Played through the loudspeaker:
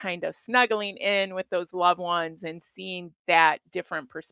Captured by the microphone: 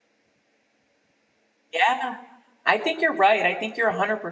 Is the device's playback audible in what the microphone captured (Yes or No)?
No